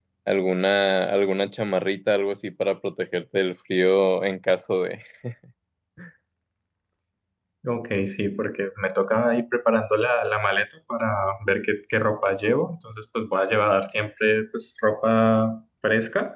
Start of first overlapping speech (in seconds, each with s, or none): none